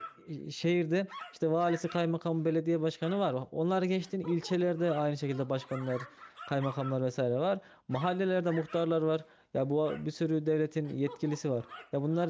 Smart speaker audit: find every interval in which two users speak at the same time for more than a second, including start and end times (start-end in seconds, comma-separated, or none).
none